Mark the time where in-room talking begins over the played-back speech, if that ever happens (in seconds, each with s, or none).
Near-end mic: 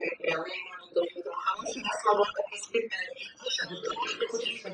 3.6 s